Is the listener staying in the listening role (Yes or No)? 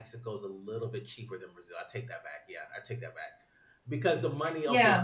Yes